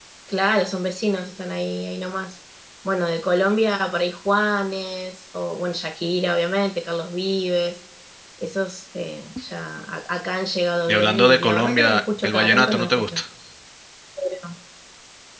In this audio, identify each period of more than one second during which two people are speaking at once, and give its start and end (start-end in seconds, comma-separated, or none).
10.9-13.2